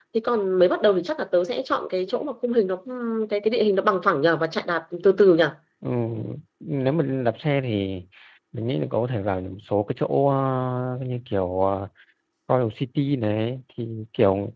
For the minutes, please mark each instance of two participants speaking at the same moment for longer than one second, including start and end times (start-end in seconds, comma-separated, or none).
none